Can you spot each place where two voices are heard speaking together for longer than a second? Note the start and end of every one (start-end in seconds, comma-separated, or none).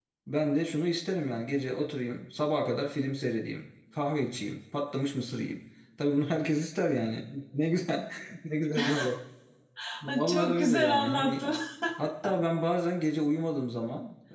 10.1-11.4